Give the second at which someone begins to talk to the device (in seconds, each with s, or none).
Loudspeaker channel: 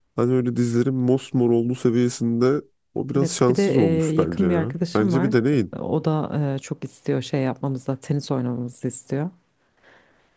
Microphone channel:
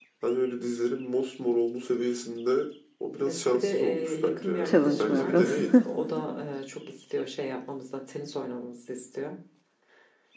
4.6 s